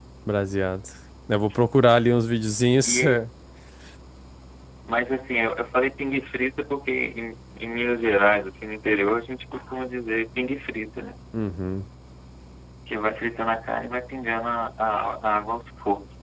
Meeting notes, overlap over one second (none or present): none